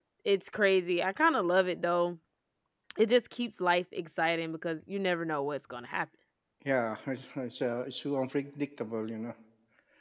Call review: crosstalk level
none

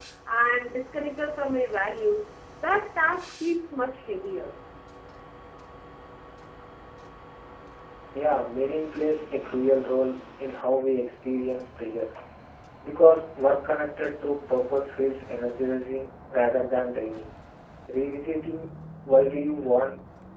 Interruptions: none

